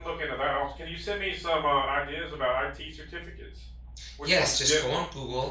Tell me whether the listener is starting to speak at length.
Yes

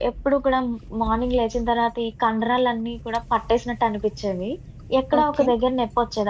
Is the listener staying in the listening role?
Yes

